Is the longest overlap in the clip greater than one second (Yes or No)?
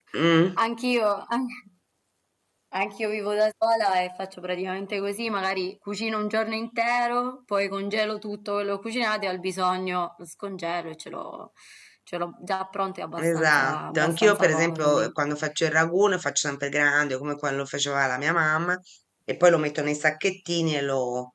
Yes